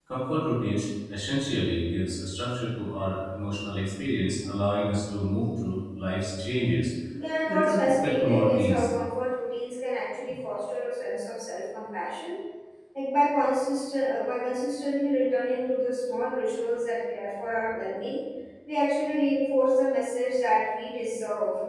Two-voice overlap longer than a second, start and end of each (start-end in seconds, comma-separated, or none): 7.5-8.9